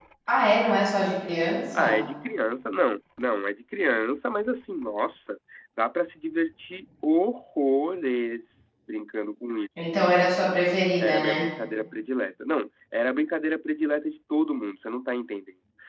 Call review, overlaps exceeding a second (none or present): none